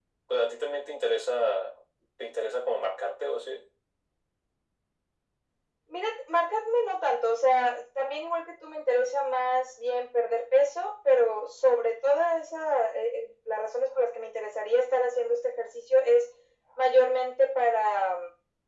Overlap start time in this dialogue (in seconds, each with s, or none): none